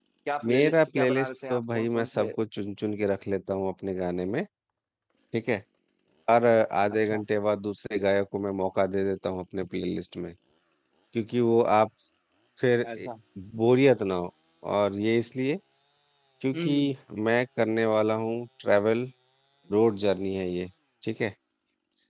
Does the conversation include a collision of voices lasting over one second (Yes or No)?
Yes